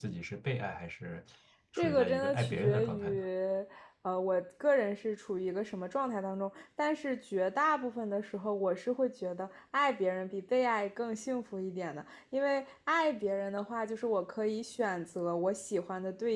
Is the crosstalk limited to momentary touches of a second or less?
No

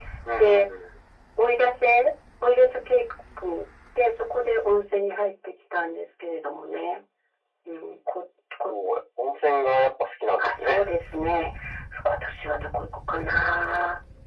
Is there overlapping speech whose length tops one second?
No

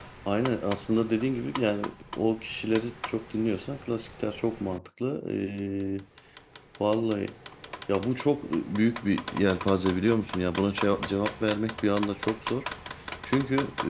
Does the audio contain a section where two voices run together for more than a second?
No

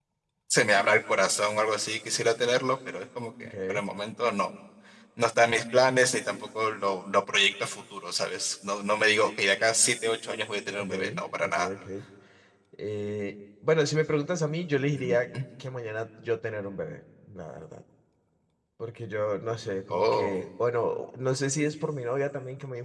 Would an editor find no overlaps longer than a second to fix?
Yes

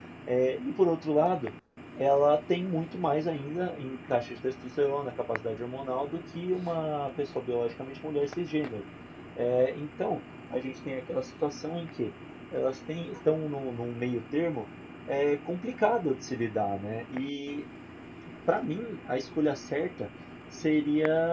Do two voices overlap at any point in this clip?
No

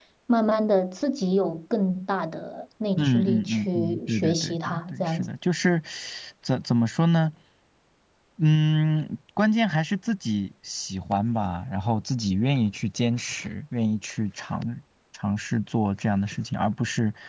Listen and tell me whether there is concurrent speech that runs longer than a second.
Yes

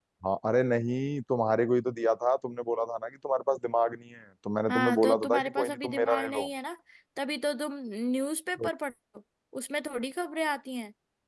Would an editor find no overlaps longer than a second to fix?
No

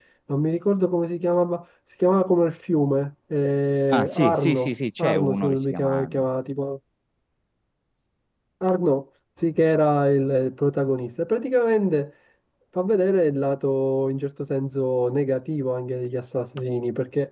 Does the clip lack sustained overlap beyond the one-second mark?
No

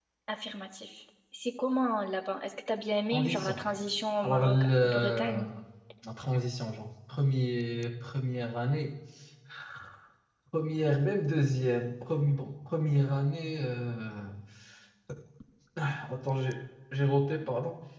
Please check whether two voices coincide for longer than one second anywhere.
Yes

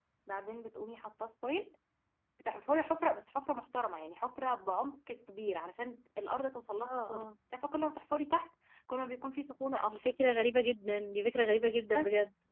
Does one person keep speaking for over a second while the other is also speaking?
No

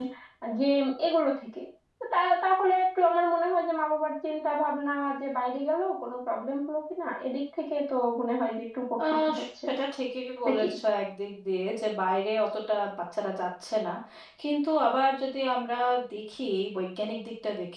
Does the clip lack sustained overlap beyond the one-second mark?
Yes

